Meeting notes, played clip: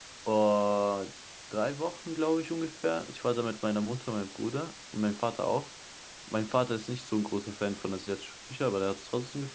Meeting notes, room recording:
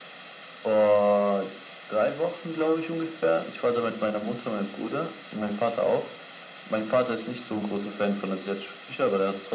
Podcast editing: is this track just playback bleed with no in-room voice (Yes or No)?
Yes